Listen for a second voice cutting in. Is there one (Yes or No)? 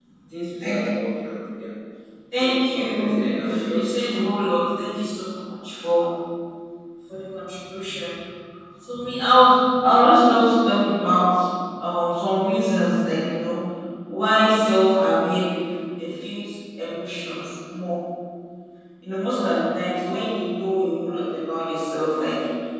Yes